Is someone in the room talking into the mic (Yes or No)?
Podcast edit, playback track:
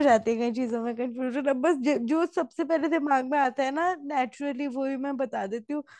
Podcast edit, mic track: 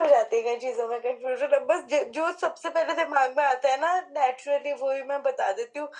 No